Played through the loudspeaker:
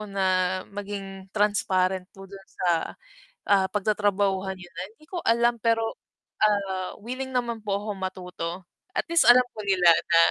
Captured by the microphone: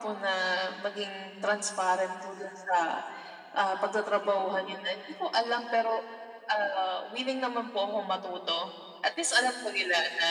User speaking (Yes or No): No